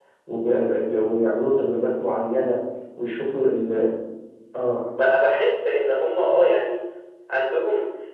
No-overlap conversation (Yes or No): Yes